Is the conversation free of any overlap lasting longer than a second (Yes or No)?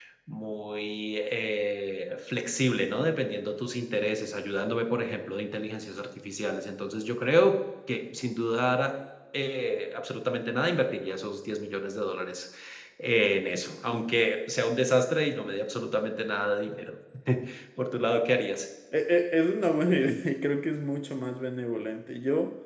Yes